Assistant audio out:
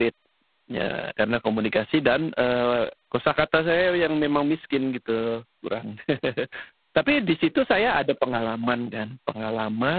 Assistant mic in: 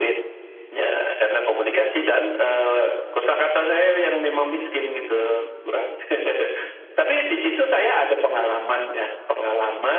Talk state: echo only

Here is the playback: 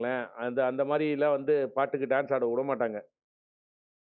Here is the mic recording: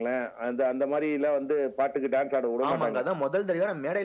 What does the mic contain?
both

